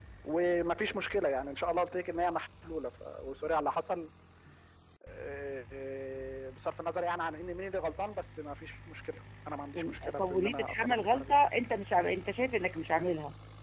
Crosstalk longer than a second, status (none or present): present